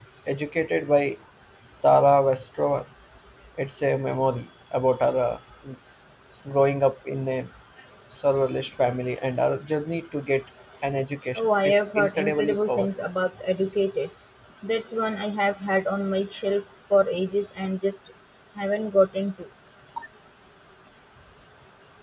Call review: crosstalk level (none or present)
present